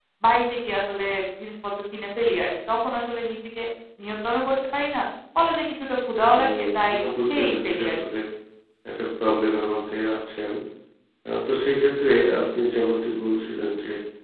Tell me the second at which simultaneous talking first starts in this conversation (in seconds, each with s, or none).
6.3 s